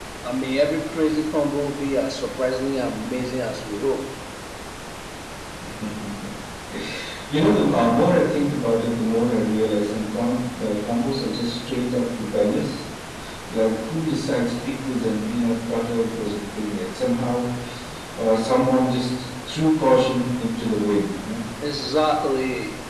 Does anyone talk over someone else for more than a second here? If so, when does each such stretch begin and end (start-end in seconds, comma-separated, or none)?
none